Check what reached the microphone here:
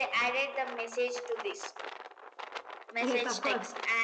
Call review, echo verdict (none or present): present